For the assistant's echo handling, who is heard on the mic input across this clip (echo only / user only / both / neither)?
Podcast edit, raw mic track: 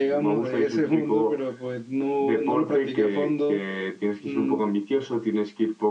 echo only